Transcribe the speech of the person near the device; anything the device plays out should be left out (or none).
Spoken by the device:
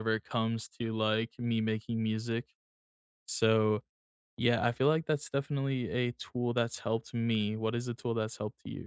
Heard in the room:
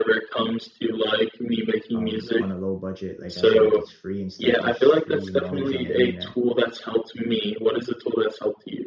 um, on a low budget, like as in like it's free and stuff. There's just free knowledge on the internet.